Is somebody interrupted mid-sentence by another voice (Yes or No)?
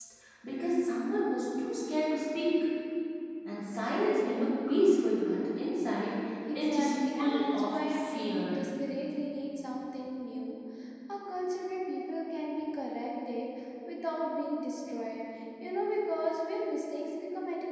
Yes